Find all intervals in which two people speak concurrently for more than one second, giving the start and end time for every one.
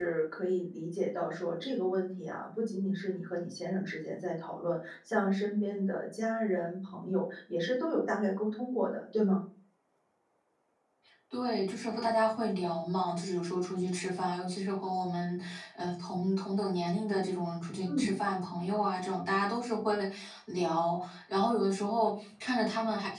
none

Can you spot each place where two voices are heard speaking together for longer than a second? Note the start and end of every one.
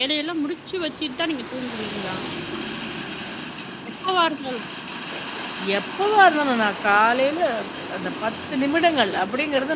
none

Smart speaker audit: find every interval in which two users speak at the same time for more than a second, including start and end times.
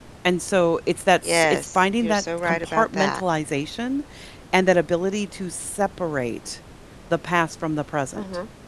1.2-3.2

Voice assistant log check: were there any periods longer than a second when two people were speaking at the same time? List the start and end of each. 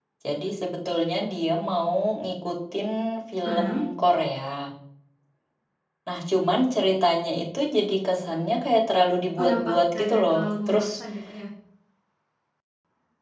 9.4-10.9

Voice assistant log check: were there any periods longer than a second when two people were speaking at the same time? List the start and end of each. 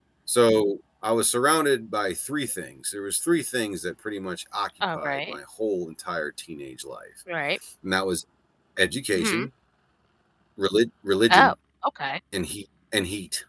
none

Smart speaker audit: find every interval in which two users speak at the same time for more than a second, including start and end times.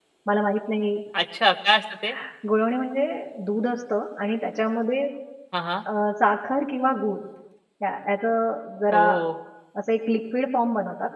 none

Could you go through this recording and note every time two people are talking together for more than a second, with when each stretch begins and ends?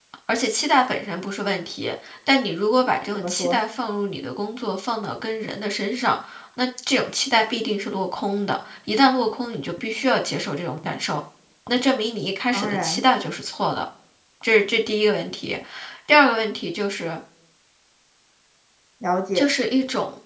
none

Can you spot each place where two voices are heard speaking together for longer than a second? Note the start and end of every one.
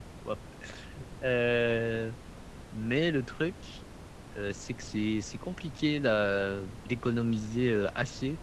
none

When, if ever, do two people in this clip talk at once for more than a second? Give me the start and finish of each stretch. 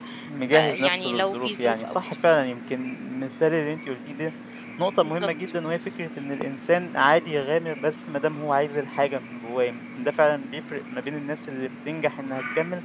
0.5-2.0

